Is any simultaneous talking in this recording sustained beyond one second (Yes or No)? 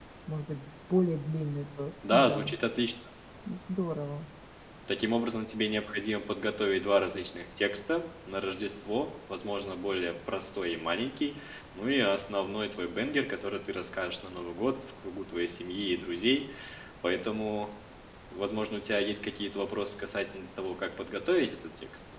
No